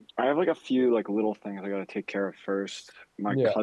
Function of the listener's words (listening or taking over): listening